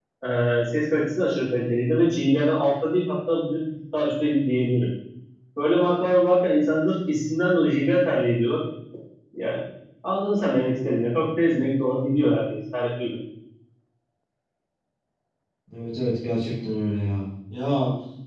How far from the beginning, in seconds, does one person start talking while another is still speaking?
none

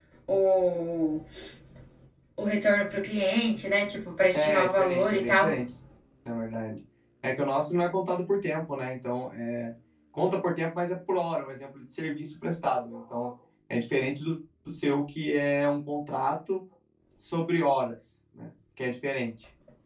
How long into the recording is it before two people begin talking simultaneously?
4 s

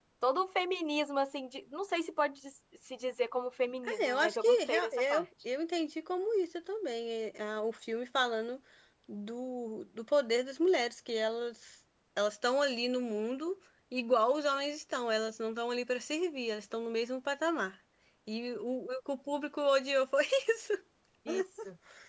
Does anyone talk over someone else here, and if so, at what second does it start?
4 s

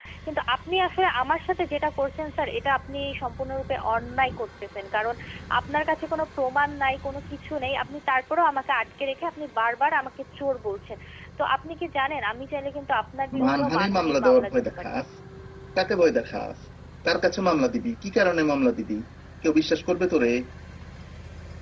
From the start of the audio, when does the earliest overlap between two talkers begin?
13 s

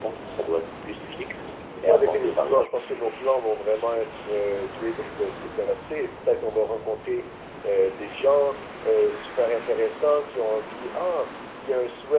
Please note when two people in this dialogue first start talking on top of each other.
2 s

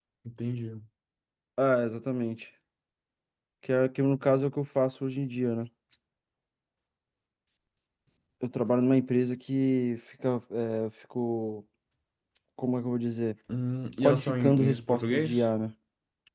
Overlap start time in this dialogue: 14 s

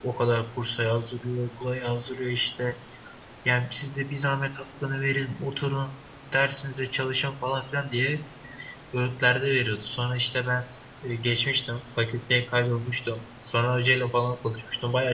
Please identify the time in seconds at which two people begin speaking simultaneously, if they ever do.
none

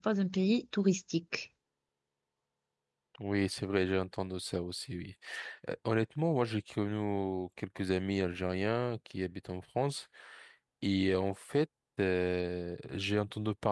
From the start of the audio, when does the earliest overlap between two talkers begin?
none

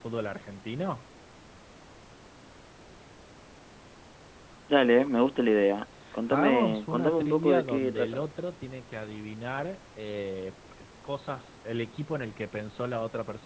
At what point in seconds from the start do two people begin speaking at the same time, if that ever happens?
6 s

